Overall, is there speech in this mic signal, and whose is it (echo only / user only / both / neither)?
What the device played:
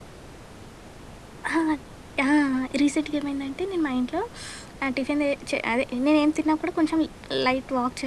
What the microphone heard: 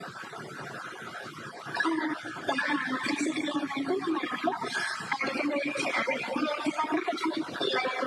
echo only